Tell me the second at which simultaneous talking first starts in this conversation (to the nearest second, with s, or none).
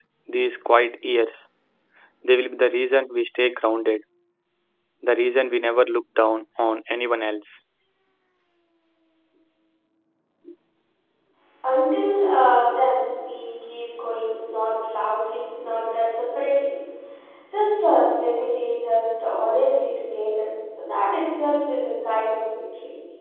none